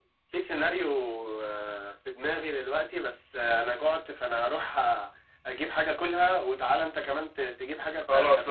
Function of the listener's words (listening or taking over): taking over